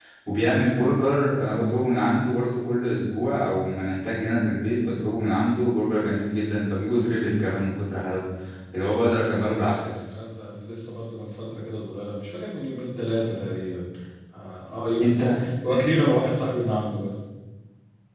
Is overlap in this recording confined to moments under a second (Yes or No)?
Yes